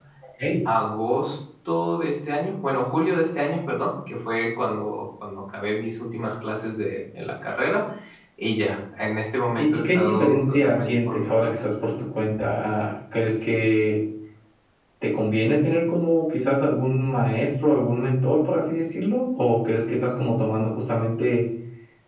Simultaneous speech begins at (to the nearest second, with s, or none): 10 s